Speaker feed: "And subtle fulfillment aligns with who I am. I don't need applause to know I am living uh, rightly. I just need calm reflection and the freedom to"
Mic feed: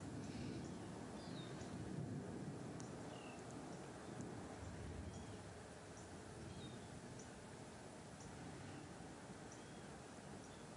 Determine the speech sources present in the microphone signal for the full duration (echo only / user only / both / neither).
neither